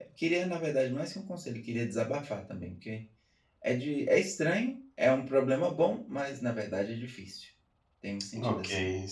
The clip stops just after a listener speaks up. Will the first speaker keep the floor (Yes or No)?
No